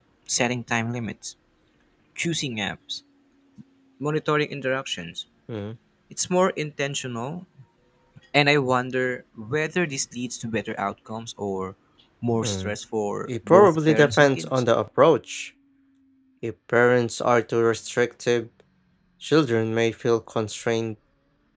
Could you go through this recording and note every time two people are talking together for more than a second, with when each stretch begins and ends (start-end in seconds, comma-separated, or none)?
13.3-14.5